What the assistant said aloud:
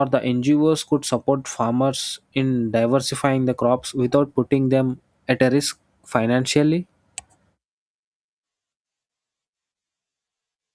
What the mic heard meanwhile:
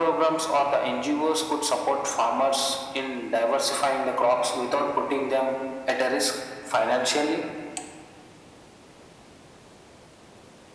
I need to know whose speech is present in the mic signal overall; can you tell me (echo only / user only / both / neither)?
echo only